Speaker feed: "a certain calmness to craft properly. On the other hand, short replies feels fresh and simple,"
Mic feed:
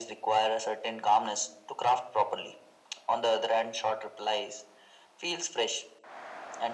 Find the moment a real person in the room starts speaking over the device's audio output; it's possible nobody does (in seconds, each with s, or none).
none